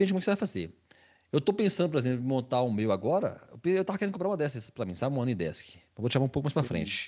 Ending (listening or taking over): listening